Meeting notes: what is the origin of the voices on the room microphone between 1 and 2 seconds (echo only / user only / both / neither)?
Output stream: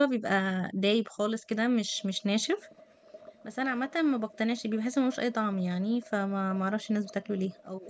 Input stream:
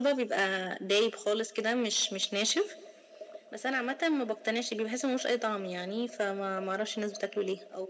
echo only